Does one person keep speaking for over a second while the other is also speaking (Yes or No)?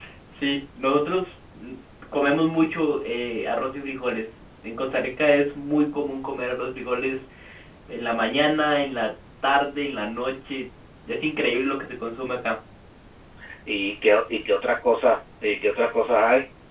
No